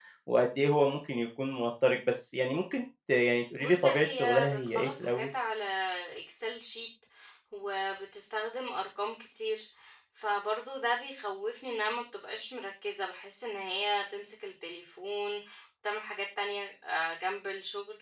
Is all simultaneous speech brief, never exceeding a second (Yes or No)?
No